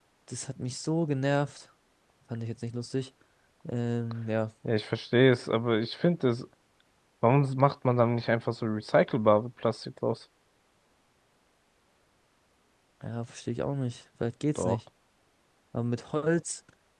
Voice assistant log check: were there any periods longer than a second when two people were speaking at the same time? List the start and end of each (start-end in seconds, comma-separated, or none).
none